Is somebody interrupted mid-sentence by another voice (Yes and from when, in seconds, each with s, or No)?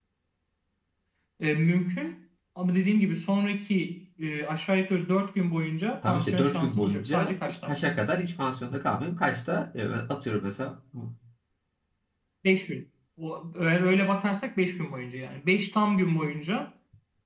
Yes, from 6.0 s